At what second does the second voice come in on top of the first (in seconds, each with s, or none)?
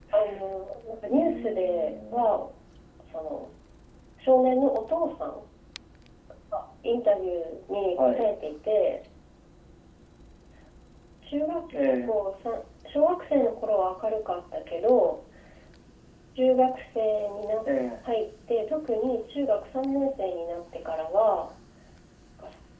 1.1 s